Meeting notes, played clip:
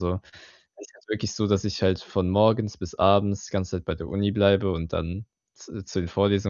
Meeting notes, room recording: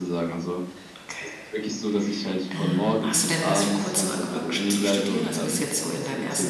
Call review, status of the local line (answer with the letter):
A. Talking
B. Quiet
A